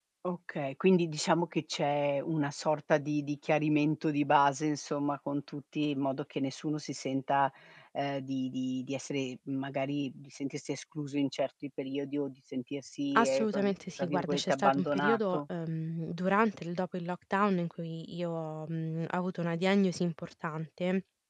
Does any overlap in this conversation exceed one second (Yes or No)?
Yes